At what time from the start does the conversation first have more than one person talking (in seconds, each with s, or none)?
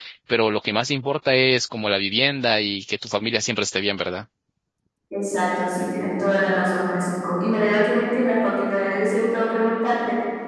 none